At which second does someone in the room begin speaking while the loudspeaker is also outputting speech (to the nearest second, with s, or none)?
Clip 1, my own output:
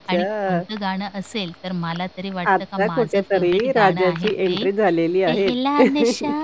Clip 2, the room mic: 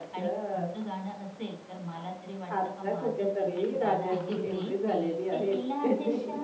4 s